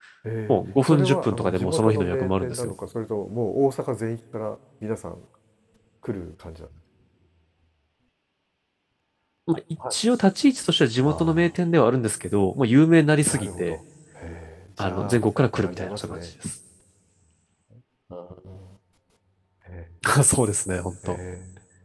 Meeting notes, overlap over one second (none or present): present